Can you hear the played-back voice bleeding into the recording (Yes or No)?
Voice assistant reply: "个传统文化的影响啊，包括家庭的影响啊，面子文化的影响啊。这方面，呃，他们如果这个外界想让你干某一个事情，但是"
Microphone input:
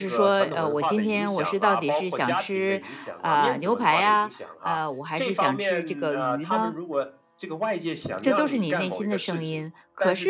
Yes